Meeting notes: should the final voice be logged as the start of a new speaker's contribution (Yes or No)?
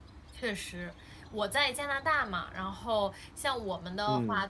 No